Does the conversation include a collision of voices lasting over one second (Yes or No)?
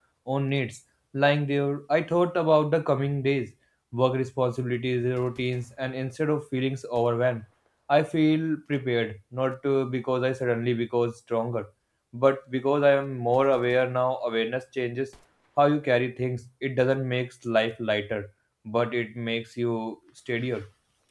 No